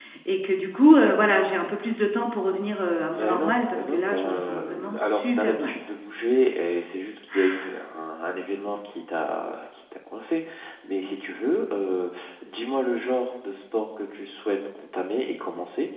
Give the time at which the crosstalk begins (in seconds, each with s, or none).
3.1 s